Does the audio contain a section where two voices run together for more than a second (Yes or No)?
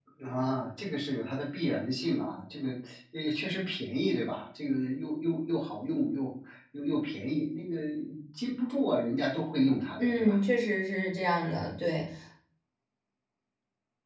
No